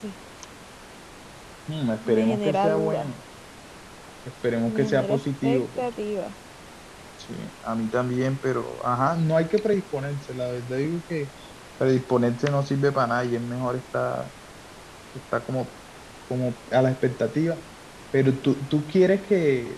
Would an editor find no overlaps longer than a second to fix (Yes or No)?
No